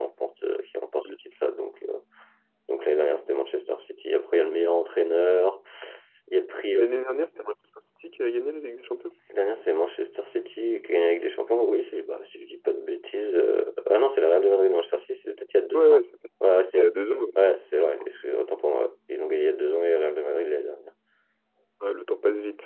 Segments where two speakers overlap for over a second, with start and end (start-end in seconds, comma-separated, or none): none